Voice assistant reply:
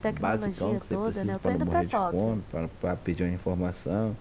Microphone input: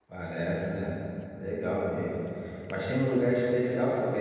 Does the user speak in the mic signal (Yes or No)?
Yes